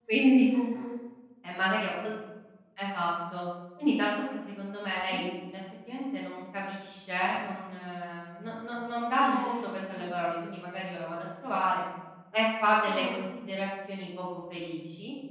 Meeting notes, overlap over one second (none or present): none